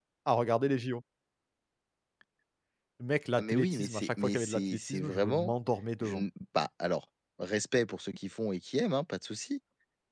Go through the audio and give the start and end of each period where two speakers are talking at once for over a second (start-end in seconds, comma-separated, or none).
3.4-5.5